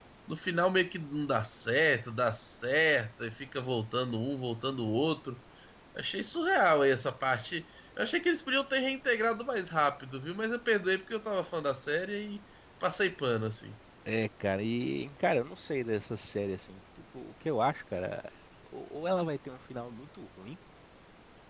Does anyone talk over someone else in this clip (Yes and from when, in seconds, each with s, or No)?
No